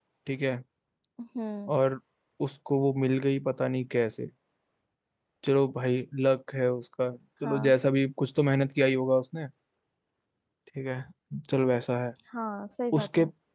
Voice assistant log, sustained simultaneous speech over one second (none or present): none